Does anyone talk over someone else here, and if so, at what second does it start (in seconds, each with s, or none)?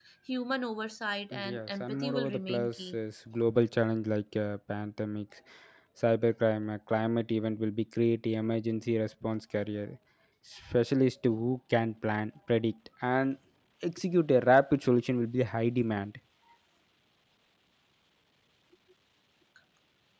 1.3 s